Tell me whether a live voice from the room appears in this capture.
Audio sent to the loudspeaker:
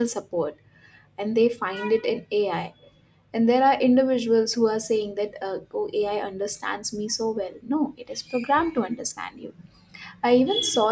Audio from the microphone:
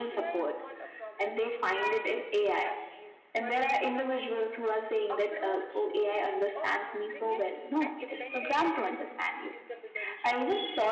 Yes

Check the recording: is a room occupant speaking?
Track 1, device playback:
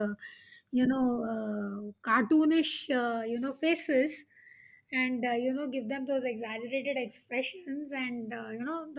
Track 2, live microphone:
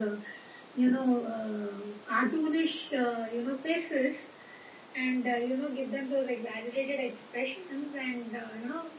No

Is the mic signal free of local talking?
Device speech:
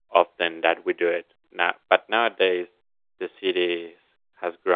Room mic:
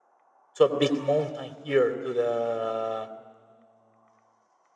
No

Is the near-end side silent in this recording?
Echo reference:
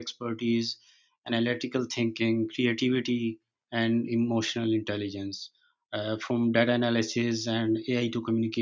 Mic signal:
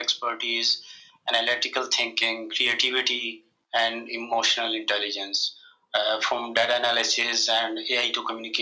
Yes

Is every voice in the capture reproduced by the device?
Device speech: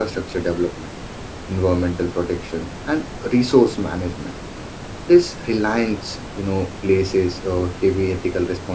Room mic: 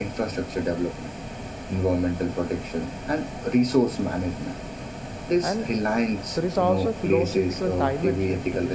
No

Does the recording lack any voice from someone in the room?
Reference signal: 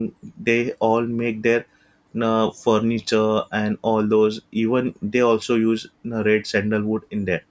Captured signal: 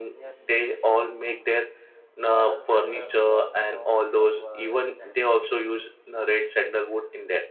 No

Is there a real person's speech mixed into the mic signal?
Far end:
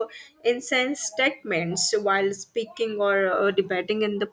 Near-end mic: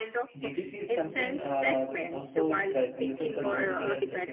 Yes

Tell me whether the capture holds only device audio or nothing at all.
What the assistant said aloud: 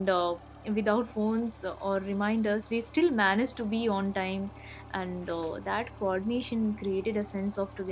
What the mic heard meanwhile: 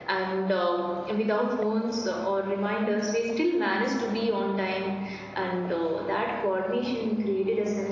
Yes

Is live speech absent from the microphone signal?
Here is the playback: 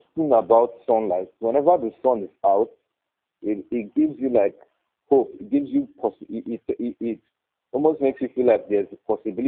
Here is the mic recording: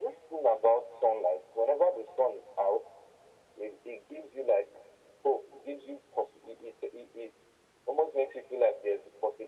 Yes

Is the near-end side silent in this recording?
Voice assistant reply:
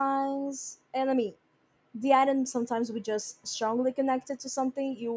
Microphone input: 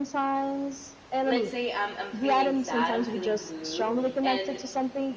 No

